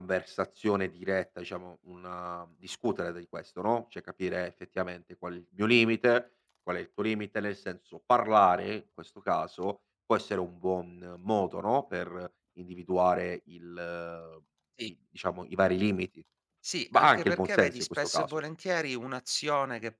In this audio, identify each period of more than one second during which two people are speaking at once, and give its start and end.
16.9-18.3

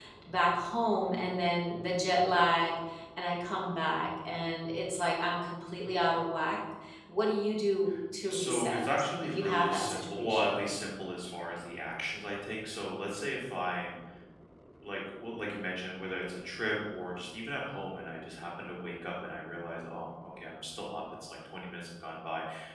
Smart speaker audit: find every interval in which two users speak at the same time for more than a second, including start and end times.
8.3-10.6

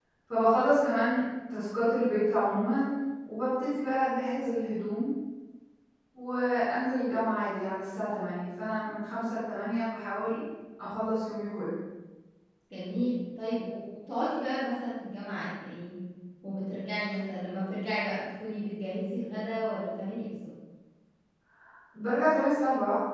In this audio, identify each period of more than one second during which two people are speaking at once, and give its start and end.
none

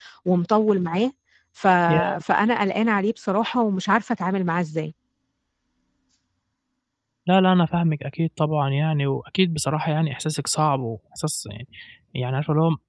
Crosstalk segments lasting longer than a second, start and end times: none

